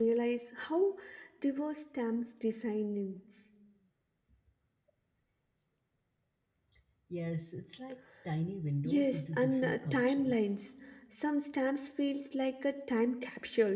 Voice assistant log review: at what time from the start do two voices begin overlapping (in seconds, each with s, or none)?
8.8 s